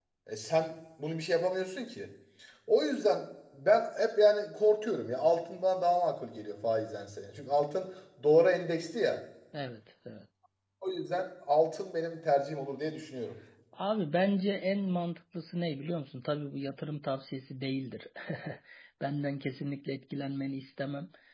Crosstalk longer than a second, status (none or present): none